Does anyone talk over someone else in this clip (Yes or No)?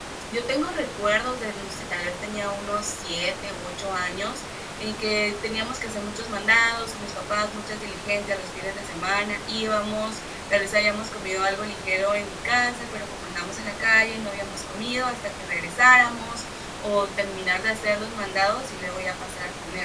No